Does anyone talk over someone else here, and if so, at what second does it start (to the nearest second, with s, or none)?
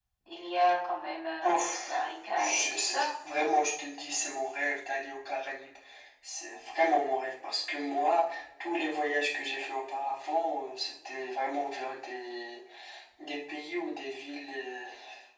1 s